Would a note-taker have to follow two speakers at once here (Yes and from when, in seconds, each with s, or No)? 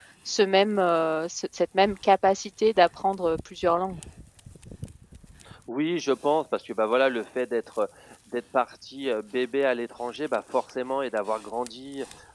No